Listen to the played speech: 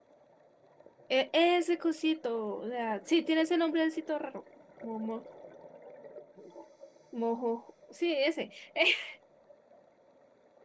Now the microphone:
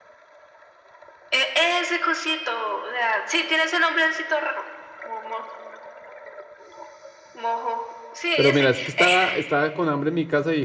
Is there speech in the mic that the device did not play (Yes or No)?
Yes